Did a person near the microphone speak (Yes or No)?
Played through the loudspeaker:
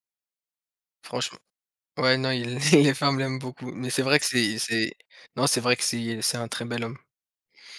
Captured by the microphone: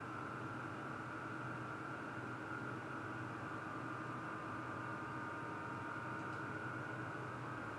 No